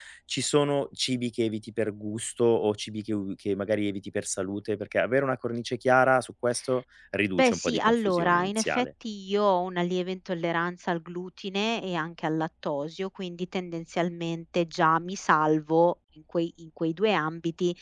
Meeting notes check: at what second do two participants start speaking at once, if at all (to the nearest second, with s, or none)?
7 s